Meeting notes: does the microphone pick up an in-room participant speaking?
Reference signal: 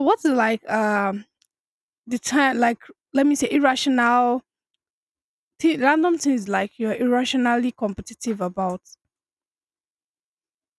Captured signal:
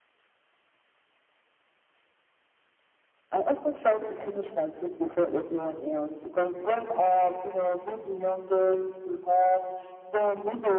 Yes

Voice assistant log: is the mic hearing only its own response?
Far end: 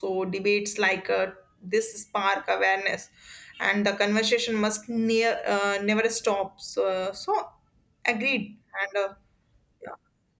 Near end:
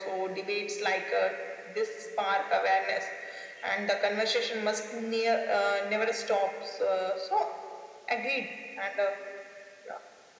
Yes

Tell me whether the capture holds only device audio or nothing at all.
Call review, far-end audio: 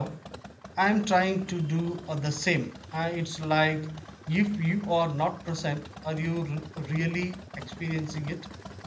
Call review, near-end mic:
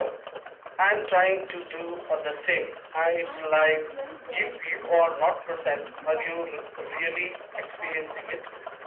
No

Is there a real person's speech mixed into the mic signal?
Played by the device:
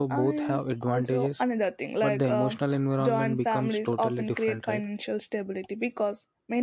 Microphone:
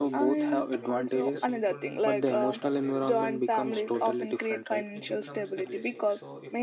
Yes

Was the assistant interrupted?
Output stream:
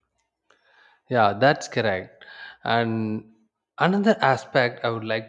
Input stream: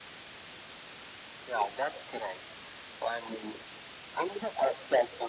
No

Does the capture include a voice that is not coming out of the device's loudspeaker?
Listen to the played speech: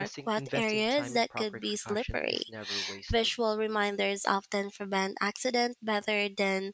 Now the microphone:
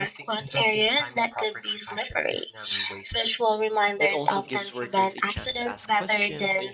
Yes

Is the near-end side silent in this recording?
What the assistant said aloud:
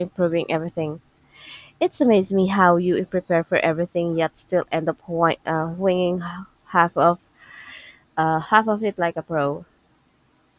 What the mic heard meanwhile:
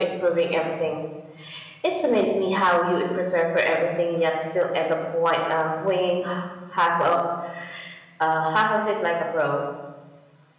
Yes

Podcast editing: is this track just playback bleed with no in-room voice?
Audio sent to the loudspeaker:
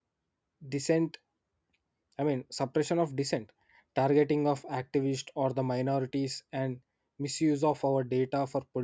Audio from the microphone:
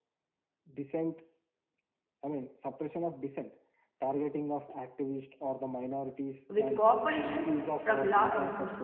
No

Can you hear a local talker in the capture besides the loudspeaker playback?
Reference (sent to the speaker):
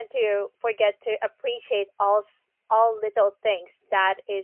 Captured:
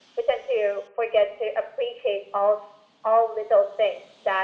No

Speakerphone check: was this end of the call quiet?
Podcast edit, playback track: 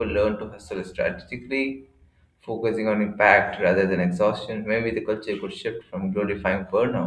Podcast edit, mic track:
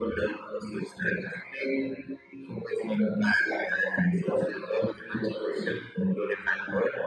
Yes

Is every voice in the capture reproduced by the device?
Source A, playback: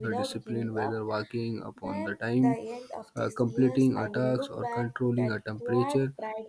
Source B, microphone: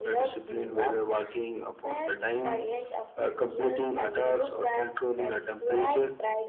Yes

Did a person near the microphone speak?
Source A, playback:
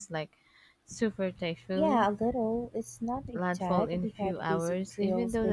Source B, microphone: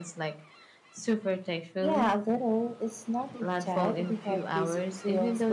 No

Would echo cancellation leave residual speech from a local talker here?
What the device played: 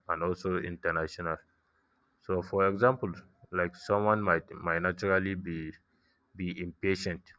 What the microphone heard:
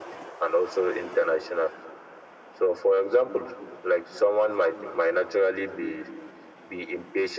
No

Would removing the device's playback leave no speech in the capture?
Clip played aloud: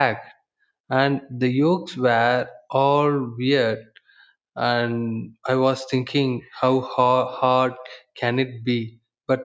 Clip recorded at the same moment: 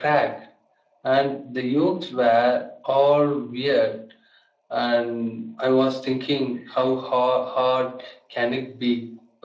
Yes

